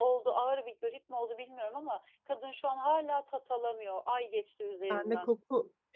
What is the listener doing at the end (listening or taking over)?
taking over